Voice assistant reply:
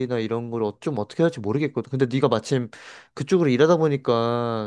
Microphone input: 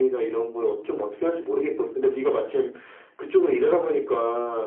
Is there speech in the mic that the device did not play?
No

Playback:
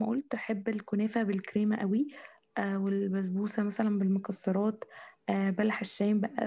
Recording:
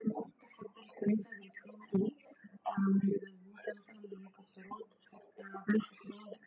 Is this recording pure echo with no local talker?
Yes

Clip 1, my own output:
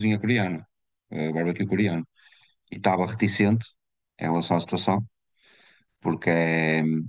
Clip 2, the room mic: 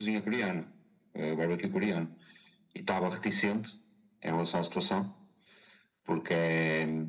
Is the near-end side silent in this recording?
Yes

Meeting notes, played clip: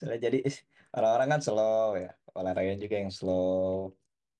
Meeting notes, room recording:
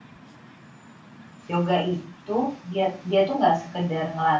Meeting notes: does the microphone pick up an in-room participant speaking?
Yes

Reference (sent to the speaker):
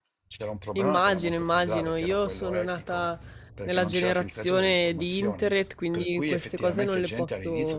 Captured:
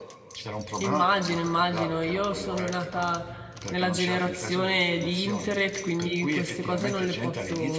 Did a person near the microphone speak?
No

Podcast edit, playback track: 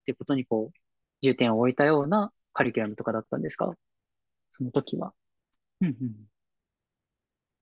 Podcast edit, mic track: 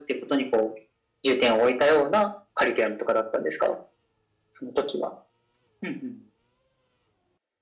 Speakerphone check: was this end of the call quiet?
Yes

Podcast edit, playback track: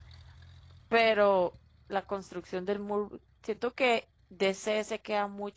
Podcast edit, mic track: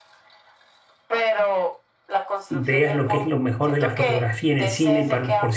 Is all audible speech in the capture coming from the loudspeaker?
No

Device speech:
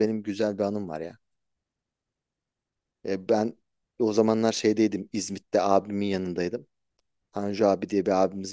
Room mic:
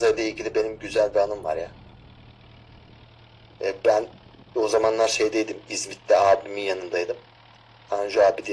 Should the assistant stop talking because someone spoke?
No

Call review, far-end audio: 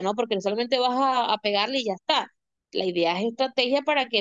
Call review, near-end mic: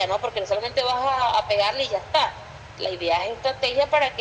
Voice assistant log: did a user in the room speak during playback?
No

